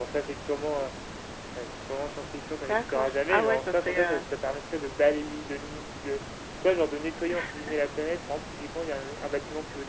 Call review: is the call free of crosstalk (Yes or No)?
No